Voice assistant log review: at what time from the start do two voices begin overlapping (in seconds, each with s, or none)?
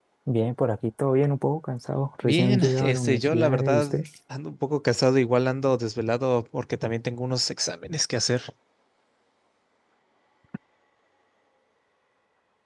2.2 s